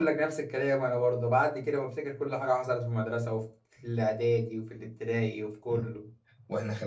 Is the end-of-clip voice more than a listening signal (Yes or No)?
Yes